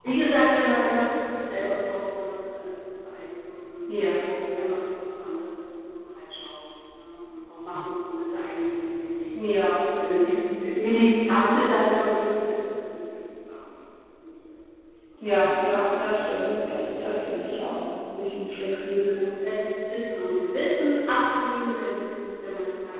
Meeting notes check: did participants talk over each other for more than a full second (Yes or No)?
No